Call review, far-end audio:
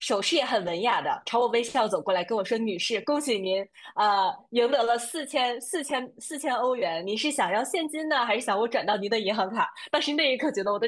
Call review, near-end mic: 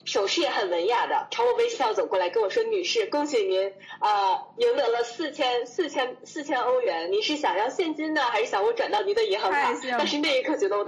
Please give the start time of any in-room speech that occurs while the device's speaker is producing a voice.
9.4 s

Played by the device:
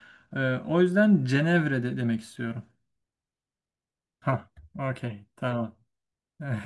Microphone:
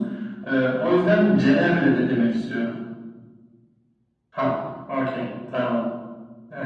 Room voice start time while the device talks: none

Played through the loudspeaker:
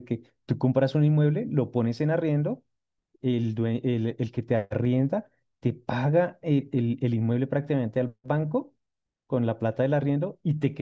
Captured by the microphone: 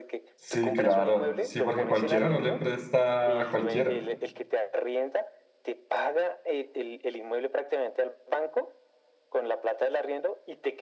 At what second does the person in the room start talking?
0.4 s

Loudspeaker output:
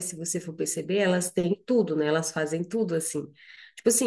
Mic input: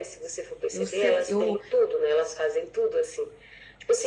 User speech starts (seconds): 0.7 s

